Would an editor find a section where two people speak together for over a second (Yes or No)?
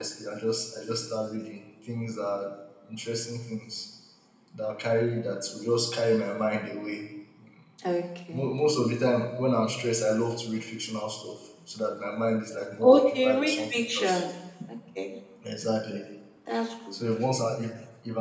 Yes